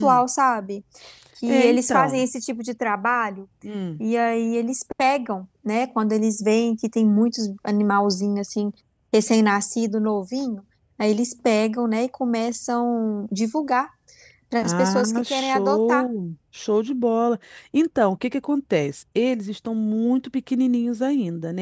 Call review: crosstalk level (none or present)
present